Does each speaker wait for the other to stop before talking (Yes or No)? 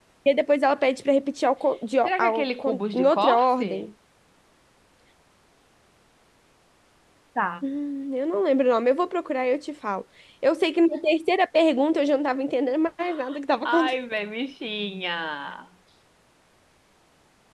No